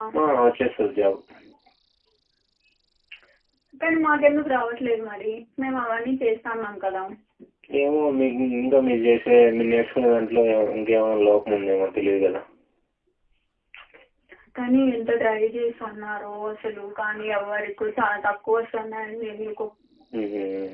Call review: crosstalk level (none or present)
none